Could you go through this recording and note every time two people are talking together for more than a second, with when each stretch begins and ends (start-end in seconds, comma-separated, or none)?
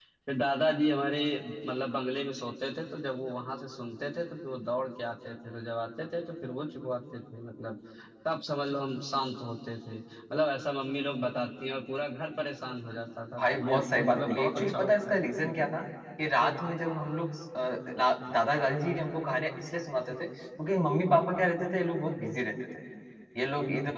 13.4-15.2